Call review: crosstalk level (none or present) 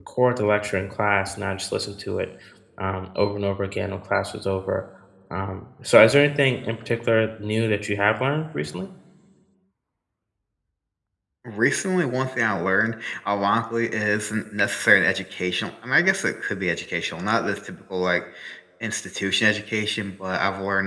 none